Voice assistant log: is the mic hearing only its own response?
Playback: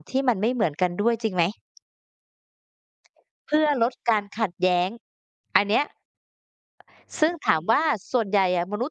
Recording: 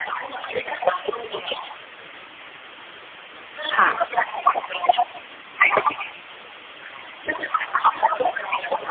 No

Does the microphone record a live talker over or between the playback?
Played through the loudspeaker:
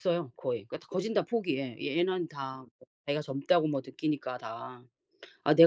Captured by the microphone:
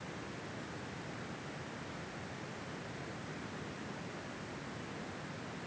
No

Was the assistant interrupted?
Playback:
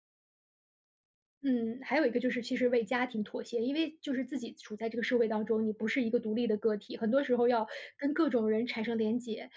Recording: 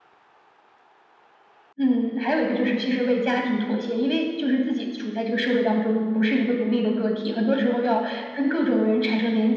No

